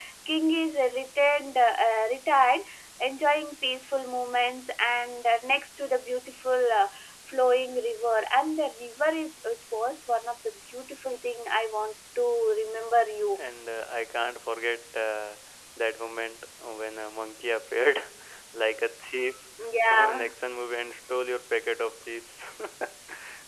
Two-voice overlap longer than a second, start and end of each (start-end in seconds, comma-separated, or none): none